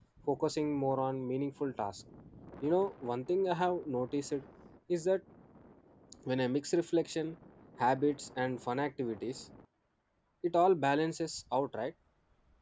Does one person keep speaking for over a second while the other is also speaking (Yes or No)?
No